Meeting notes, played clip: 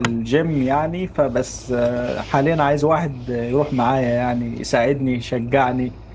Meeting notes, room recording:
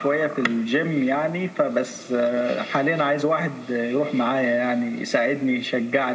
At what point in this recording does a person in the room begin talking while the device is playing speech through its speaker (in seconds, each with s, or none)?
none